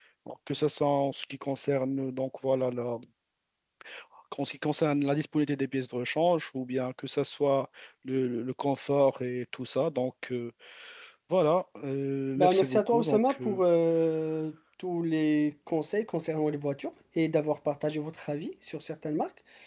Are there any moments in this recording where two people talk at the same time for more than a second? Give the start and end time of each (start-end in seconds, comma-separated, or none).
12.4-13.6